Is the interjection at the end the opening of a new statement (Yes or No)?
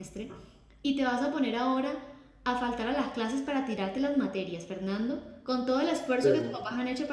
No